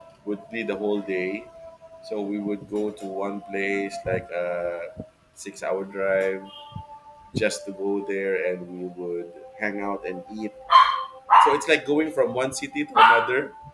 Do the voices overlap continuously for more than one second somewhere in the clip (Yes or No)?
No